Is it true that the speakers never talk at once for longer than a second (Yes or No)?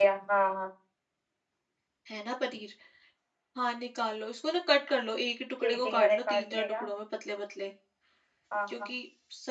No